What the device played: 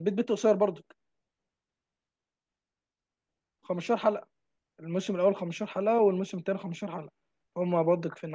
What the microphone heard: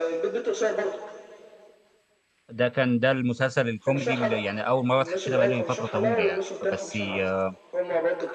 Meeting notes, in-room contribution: present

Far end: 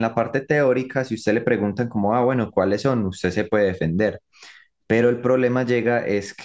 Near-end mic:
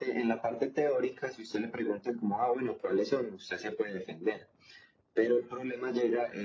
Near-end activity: none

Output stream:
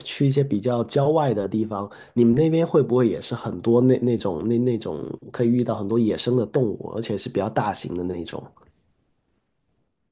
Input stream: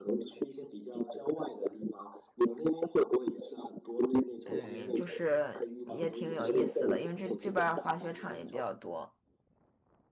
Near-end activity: present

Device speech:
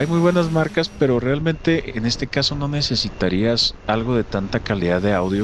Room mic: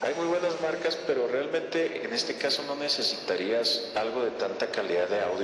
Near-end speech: none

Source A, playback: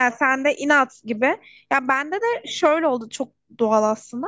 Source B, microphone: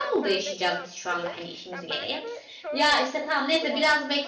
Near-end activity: present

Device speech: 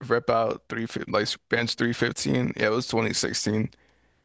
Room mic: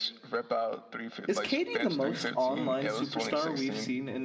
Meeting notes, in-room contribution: present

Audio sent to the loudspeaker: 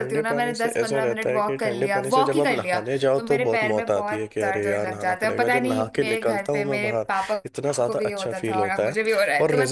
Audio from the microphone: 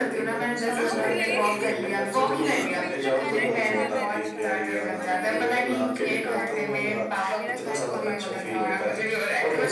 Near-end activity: present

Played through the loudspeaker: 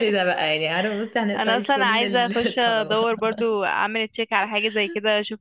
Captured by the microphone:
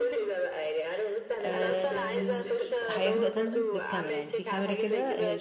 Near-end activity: present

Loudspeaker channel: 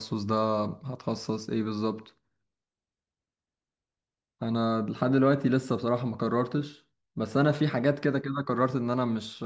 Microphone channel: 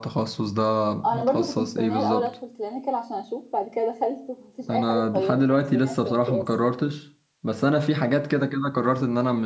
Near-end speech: present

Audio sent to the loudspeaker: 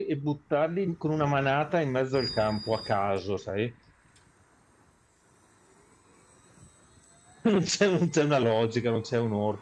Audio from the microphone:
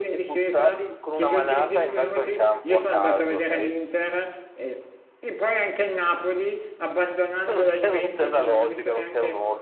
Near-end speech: present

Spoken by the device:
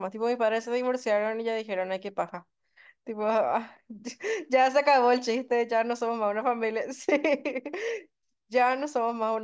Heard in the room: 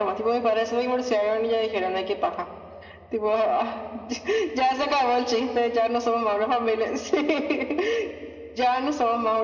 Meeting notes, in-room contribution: none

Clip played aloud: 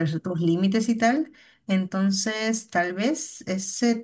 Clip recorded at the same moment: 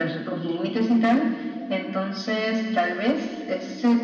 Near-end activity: none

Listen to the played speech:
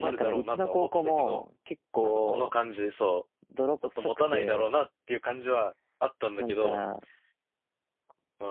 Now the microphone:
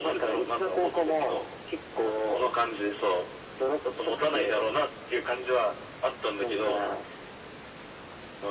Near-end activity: none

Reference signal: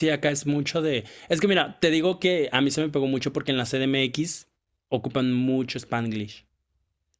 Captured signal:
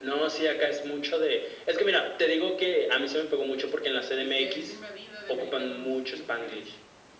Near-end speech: present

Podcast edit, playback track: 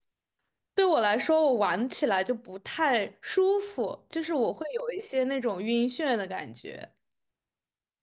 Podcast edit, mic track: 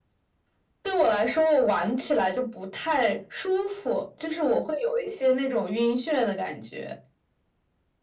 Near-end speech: none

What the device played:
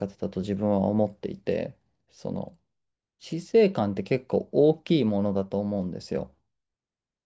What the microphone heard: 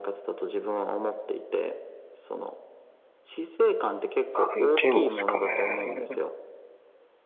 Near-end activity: present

